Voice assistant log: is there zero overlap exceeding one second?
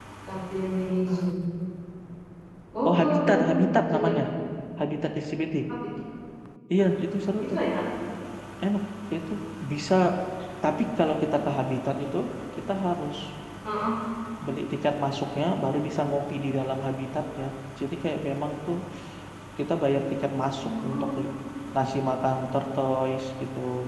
No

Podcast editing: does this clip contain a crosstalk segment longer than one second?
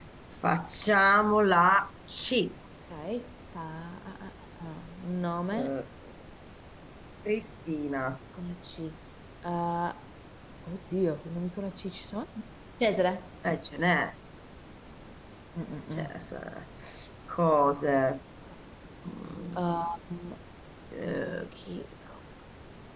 No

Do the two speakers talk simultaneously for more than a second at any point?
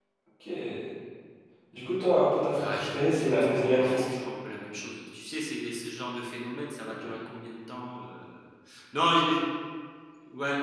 Yes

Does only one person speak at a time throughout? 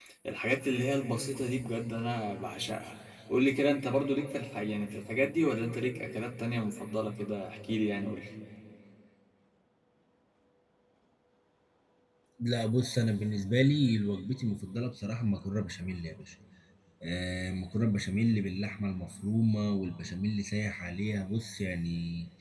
Yes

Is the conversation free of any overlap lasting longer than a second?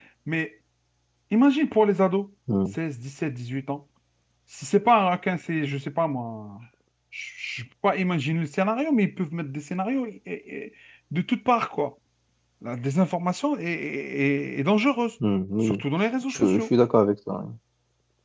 Yes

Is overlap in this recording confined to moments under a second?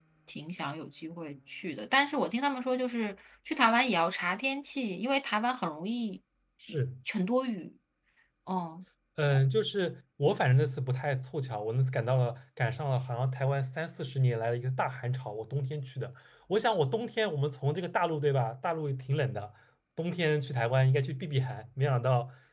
Yes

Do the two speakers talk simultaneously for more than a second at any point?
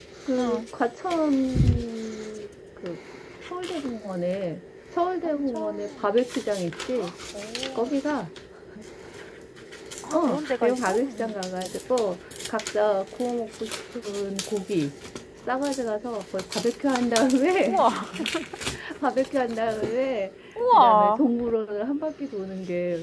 Yes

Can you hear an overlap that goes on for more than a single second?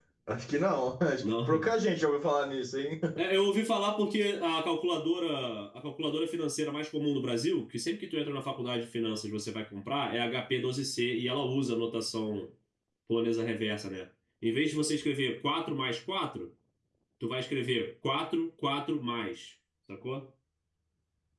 No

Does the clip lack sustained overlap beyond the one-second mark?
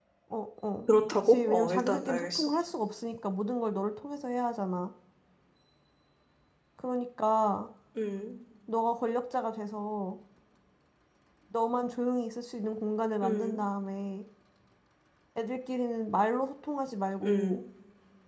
No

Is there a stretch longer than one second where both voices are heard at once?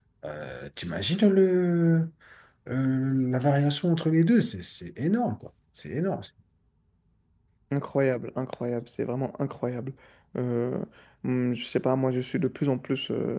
No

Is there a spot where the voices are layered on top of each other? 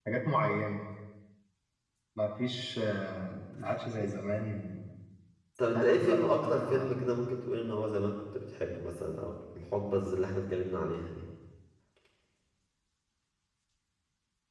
Yes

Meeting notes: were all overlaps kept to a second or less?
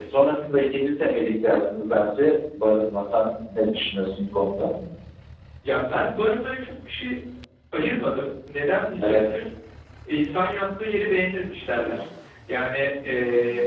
Yes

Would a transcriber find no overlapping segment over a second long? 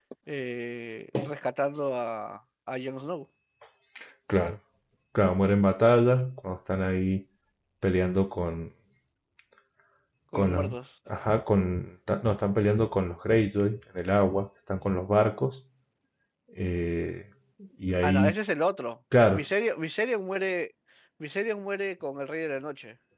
Yes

